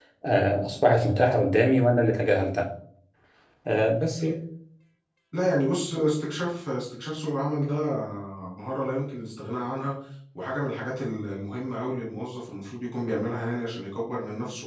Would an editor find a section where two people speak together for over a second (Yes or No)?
No